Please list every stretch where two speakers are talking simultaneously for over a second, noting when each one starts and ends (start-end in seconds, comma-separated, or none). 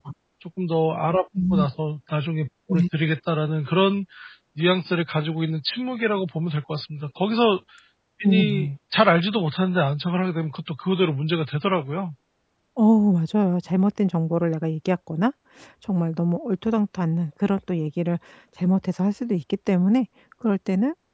none